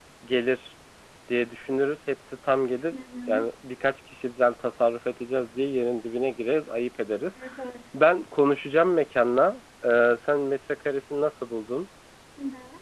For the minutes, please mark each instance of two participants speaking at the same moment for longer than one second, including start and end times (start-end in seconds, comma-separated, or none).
none